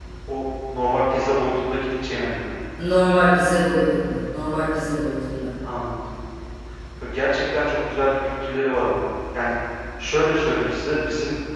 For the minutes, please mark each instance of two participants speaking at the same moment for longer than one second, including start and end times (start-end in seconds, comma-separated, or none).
none